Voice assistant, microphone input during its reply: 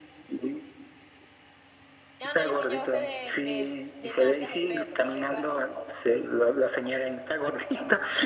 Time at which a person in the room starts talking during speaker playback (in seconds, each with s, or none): 2.2 s